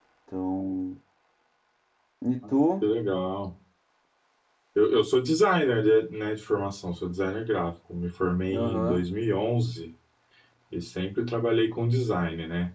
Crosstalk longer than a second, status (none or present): none